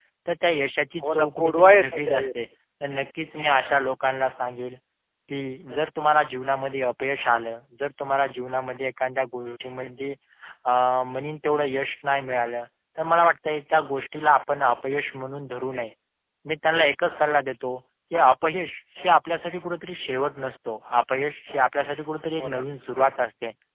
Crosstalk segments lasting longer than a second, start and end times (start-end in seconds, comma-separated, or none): 1.0-2.2